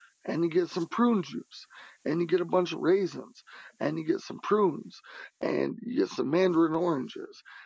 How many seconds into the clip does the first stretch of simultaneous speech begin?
none

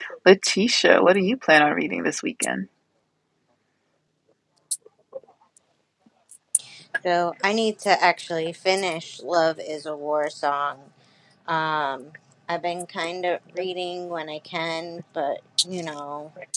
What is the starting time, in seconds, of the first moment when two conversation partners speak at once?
none

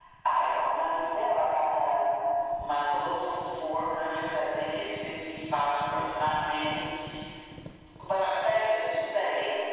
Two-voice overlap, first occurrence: none

